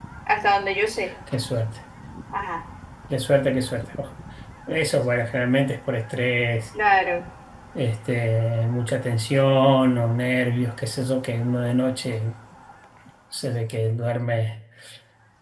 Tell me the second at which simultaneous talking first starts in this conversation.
none

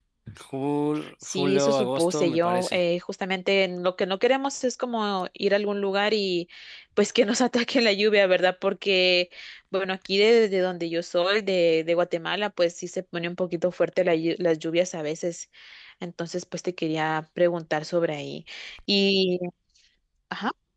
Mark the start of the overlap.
1.2 s

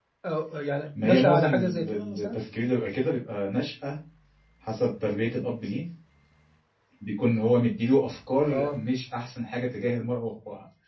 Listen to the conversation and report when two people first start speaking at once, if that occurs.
1.0 s

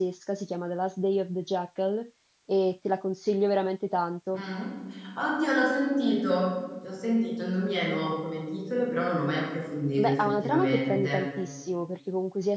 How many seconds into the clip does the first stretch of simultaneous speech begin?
10.0 s

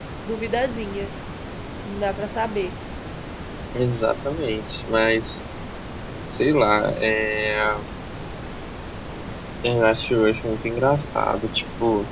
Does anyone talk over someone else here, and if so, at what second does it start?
none

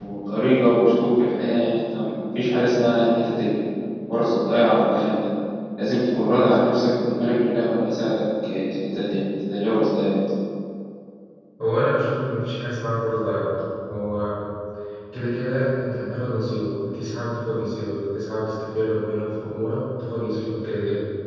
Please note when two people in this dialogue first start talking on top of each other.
none

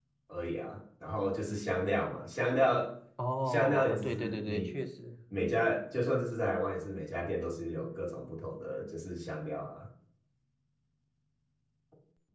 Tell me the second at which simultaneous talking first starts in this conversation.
3.5 s

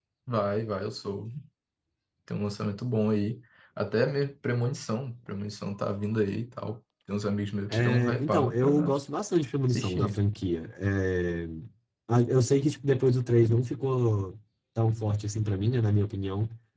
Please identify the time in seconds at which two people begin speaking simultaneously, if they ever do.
7.7 s

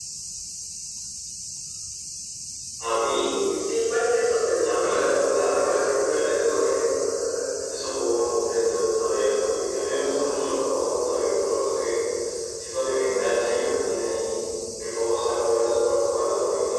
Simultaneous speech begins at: 4.6 s

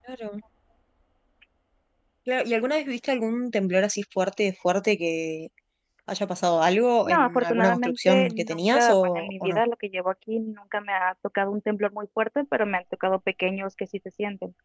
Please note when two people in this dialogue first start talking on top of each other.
7.0 s

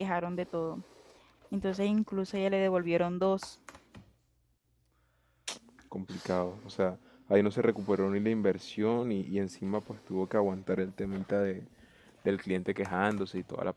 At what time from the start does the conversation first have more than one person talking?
none

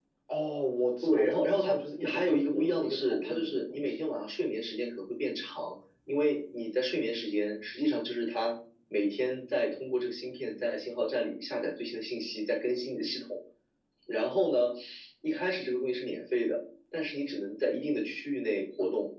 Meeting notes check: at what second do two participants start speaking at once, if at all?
1.0 s

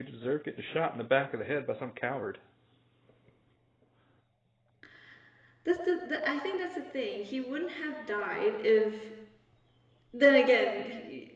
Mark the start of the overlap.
none

